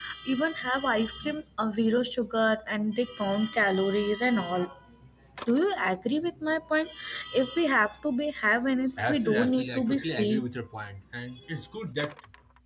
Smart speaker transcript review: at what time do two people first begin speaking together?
9.0 s

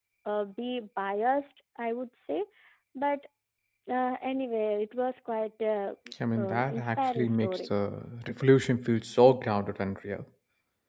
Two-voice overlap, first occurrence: 6.4 s

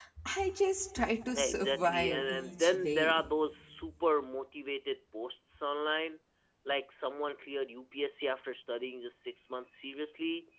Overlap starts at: 1.3 s

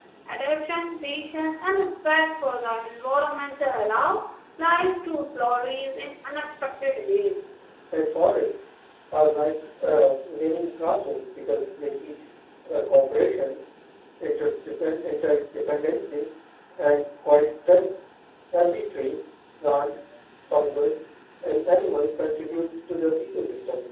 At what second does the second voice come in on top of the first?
none

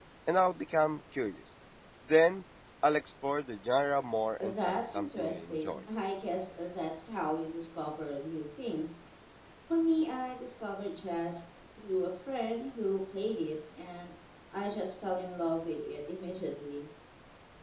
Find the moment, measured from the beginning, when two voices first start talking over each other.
4.4 s

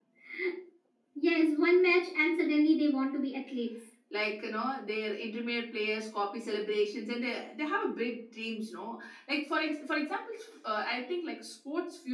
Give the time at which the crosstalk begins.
none

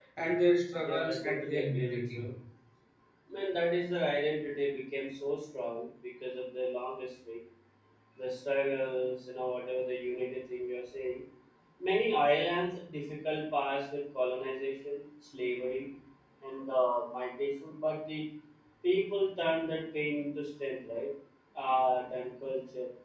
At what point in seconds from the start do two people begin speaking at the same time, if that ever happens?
0.8 s

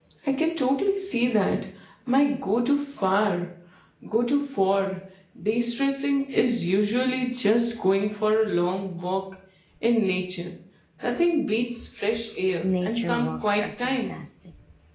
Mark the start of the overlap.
12.6 s

